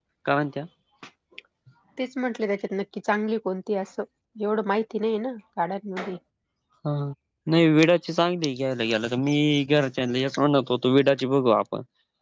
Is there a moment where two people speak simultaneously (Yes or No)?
No